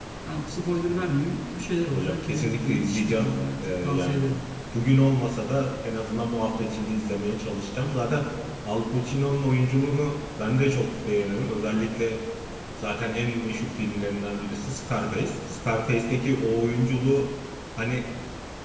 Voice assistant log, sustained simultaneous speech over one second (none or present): present